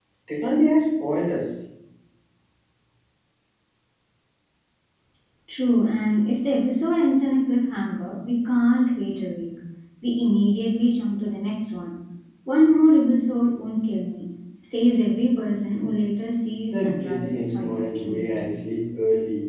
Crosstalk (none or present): present